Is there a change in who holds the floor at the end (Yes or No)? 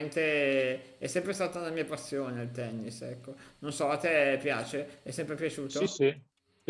Yes